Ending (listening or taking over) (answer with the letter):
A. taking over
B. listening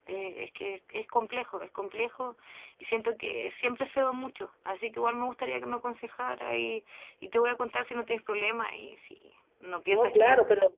A